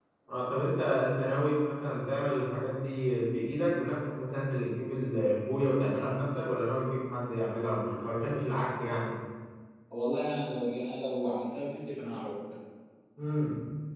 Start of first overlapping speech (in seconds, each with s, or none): none